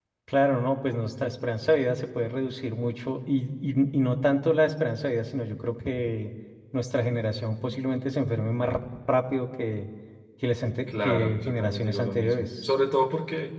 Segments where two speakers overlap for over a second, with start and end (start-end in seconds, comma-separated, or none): 10.9-12.7